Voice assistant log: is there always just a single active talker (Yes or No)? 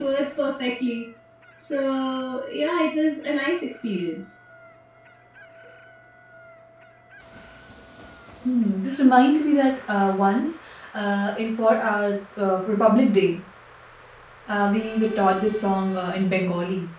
Yes